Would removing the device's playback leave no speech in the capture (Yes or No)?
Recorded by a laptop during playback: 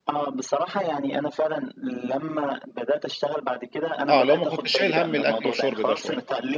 No